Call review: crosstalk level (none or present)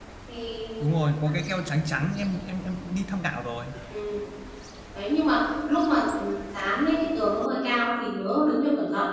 none